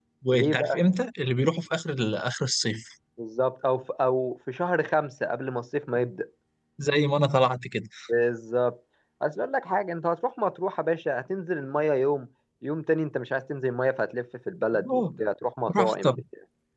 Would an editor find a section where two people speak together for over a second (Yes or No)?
No